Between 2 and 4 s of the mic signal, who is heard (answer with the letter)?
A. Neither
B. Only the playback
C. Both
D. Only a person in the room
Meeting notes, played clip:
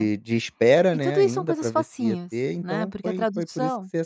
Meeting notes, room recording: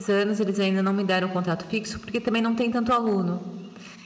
D